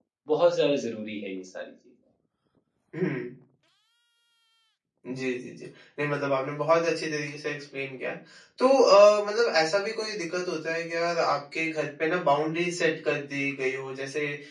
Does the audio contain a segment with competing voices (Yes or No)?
No